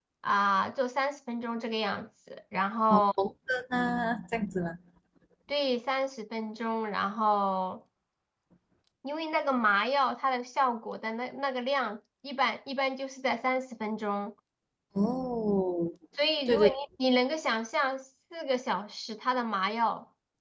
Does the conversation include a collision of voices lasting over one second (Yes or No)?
No